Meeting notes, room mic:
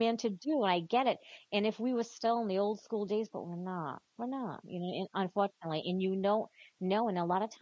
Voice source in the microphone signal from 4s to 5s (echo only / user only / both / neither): user only